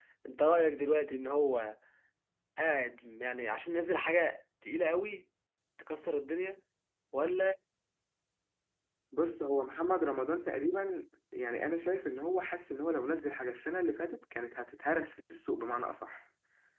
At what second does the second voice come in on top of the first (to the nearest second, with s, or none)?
none